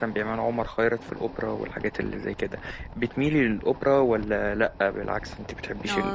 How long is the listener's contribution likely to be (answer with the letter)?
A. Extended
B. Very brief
A